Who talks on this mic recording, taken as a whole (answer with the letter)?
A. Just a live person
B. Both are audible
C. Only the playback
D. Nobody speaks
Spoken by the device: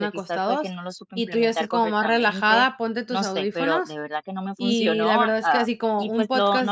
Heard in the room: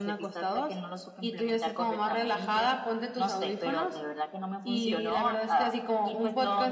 C